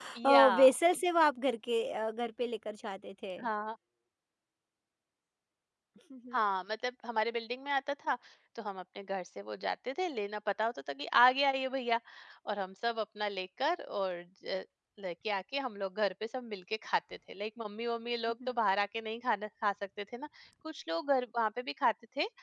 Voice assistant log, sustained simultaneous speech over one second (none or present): none